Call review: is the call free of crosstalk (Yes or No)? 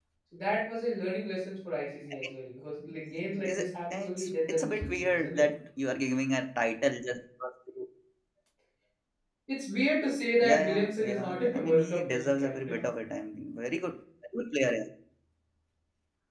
No